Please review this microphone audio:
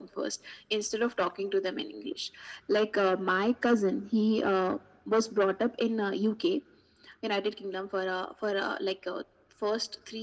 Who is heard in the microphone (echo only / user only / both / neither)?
echo only